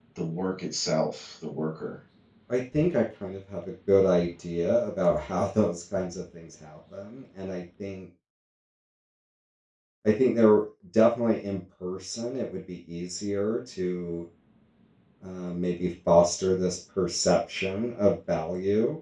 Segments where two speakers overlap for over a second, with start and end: none

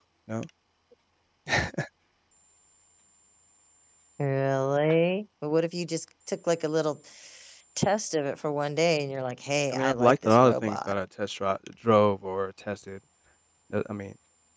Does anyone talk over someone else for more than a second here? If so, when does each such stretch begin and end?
9.7-10.9

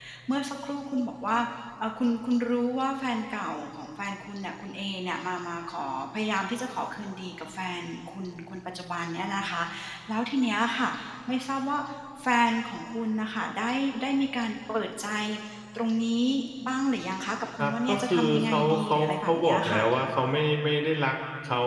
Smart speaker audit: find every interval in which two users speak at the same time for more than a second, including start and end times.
17.6-19.8

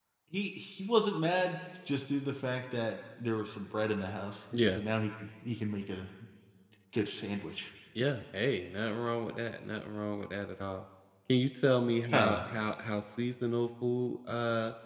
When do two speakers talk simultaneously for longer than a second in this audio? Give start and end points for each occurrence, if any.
none

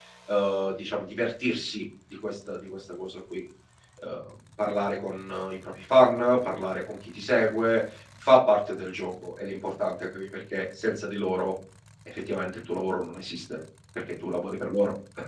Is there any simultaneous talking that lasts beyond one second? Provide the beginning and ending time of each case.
none

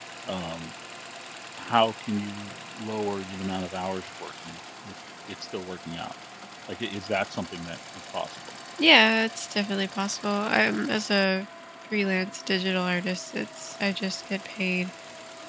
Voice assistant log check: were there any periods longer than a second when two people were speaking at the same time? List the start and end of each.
none

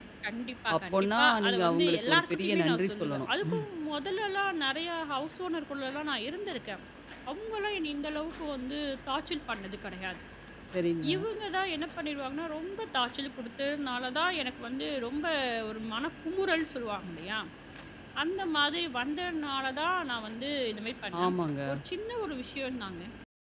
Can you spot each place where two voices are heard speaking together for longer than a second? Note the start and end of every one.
0.8-3.6

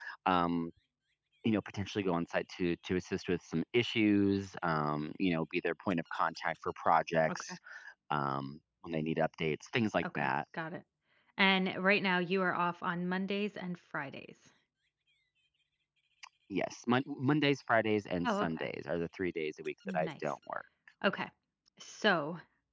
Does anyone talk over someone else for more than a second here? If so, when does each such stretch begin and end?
none

